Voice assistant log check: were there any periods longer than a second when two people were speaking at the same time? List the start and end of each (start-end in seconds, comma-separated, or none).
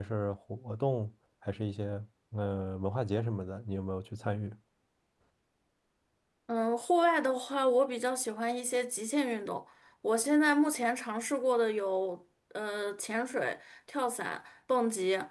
none